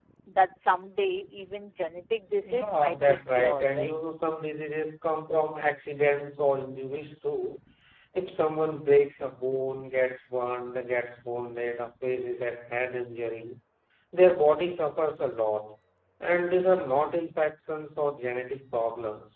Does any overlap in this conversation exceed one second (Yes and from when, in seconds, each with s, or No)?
Yes, from 2.4 s